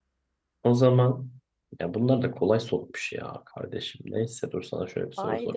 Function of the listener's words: taking over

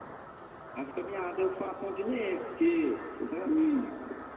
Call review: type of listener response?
listening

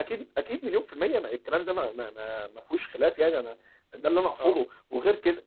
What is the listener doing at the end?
listening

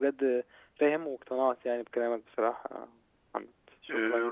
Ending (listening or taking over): taking over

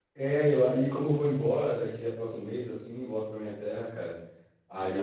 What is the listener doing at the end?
listening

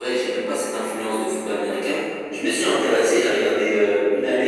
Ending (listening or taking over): listening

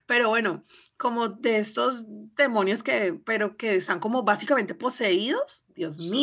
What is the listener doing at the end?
listening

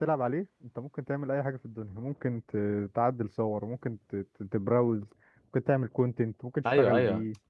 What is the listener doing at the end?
taking over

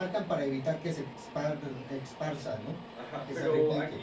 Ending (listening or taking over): taking over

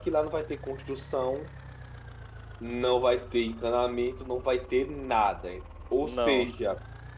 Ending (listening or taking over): listening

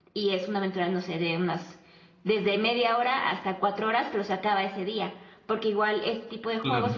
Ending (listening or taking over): listening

